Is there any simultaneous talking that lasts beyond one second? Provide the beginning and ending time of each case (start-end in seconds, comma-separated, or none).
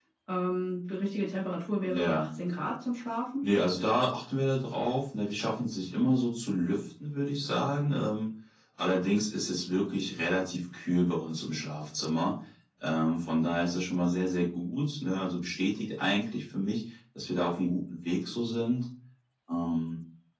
none